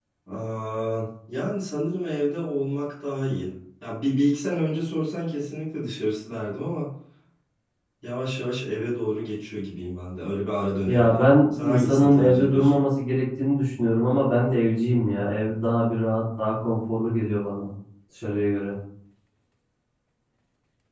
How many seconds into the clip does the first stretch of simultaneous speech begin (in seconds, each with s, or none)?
10.9 s